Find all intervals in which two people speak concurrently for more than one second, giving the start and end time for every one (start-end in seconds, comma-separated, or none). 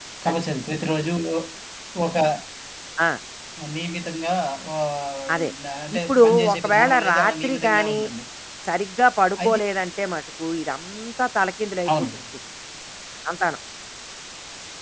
6.0-8.0